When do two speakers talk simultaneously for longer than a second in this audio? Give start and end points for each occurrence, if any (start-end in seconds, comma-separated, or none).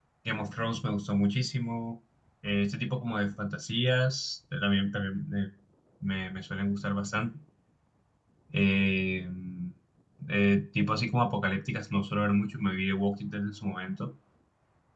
none